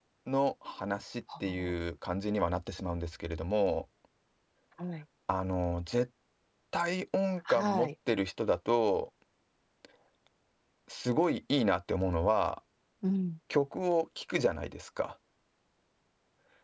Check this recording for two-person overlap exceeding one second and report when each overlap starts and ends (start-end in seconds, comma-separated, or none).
none